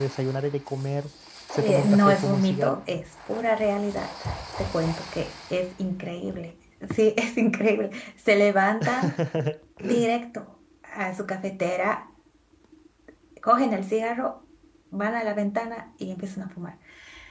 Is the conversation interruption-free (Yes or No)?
No